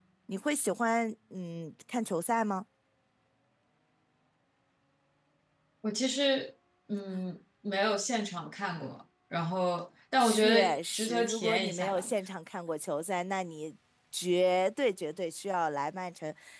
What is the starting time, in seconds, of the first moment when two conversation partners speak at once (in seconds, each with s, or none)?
10.2 s